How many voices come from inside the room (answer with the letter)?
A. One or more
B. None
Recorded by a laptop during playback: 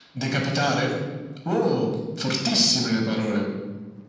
B